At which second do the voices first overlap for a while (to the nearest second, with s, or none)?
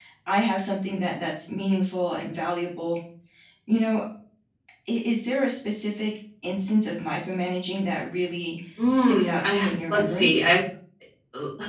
9 s